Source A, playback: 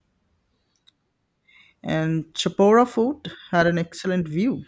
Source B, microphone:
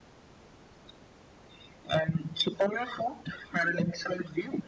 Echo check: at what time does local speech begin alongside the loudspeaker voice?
none

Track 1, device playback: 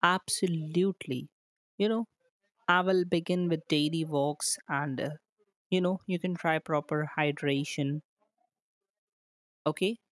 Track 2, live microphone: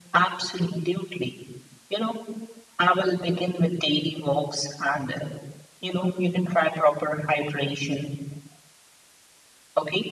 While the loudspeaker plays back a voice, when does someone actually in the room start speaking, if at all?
none

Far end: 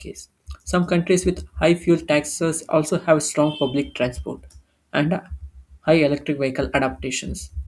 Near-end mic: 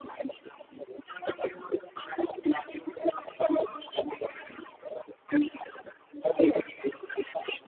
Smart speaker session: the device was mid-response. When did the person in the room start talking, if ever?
none

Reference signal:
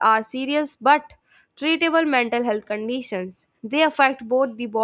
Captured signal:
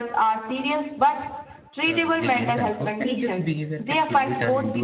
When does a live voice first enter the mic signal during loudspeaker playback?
1.9 s

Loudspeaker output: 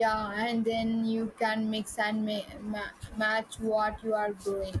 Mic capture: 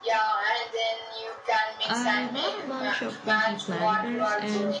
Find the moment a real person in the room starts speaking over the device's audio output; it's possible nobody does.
1.8 s

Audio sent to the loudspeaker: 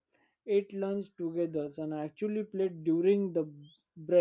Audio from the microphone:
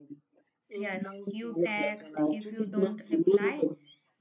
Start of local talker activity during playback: 0.7 s

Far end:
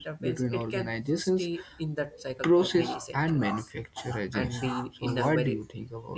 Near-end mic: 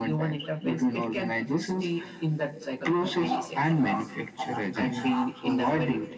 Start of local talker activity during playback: none

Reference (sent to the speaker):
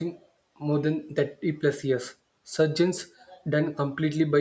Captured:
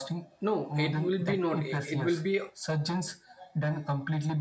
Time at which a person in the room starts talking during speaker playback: 0.4 s

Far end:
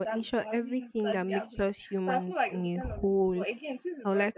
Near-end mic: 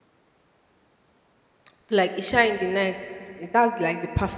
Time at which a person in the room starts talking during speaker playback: 1.8 s

